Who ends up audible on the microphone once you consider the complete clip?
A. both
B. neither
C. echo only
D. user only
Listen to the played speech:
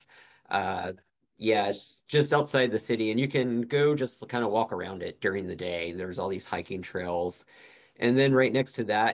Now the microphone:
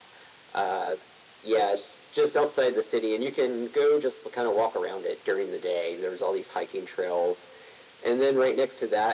C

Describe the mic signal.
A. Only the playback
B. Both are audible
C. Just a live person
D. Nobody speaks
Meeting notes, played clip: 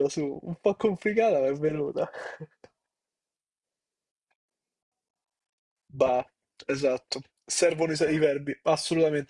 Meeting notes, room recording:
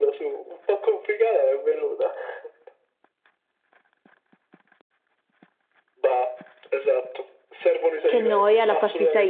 B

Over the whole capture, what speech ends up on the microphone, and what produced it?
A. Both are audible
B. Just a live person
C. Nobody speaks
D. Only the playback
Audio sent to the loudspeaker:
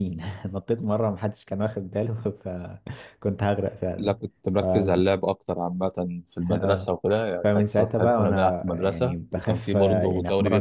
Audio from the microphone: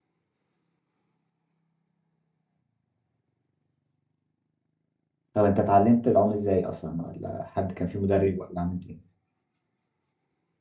B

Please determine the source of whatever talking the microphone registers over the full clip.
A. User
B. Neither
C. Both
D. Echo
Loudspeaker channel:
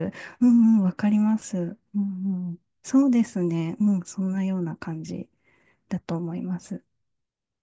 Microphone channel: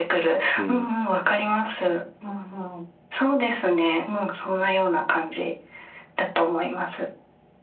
C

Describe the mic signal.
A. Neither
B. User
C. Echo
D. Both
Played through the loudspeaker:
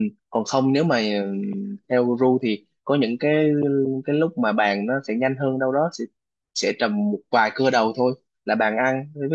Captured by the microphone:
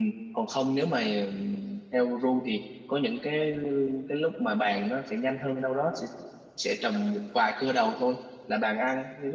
C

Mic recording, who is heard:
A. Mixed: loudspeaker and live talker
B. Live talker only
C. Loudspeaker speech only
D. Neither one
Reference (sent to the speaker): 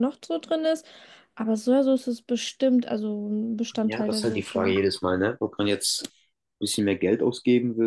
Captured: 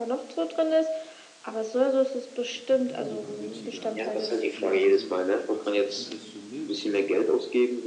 A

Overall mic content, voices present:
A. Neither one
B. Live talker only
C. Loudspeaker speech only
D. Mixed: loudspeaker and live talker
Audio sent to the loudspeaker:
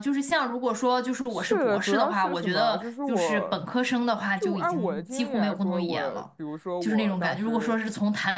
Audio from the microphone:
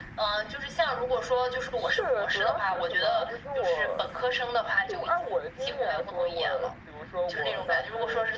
C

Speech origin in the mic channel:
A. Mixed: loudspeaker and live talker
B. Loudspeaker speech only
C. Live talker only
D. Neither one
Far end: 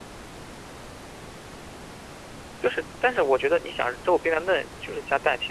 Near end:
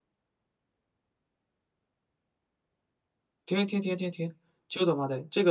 C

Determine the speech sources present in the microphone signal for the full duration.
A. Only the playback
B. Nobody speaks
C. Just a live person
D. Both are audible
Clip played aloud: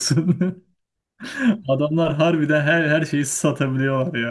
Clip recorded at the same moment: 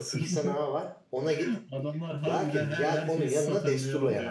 D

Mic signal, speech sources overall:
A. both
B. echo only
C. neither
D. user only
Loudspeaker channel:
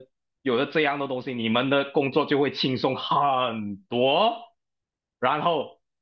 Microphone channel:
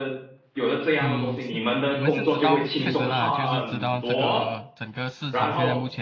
A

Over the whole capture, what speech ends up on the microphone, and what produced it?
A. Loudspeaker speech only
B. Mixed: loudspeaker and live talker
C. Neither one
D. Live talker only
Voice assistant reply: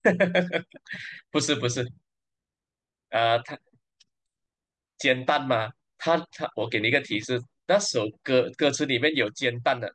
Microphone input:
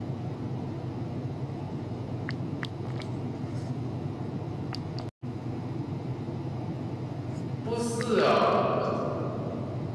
D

